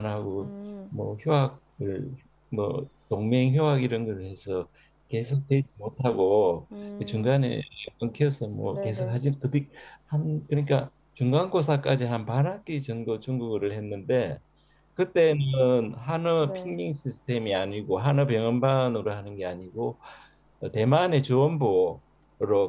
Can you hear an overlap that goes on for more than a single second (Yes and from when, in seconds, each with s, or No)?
No